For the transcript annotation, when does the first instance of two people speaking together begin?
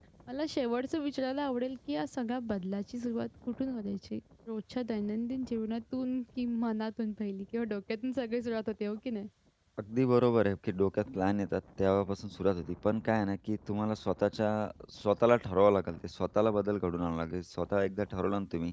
none

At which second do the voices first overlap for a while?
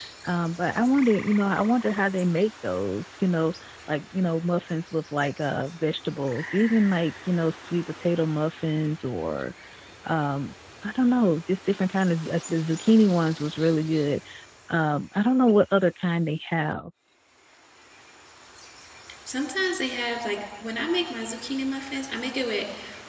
none

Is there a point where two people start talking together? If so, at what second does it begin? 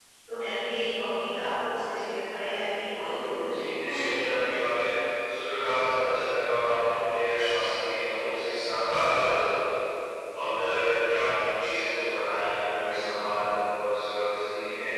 3 s

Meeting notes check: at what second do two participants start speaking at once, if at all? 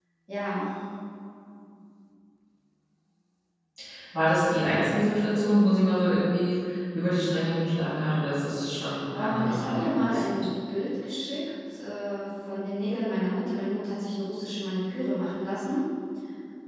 9 s

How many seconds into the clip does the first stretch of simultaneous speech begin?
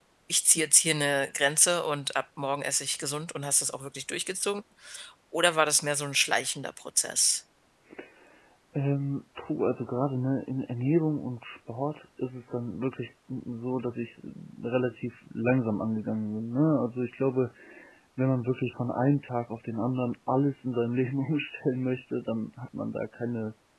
none

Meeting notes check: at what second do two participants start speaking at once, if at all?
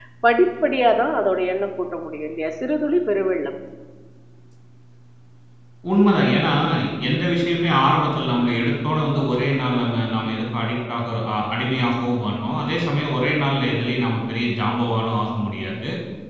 none

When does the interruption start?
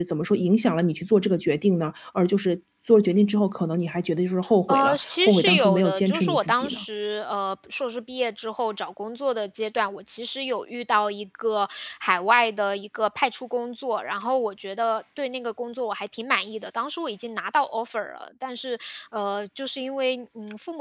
5 s

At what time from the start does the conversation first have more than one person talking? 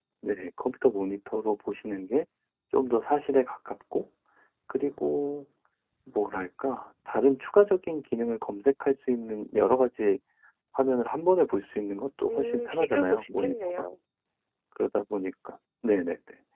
12 s

